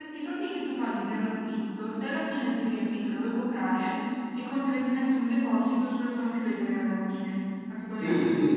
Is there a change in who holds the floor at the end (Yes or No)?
Yes